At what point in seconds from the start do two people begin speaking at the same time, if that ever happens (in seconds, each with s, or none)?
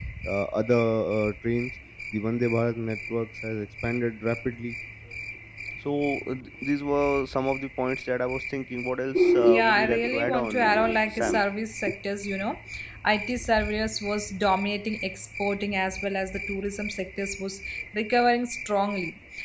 9.4 s